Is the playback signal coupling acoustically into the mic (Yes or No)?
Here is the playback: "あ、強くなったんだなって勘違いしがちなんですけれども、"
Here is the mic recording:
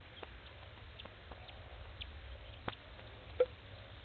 No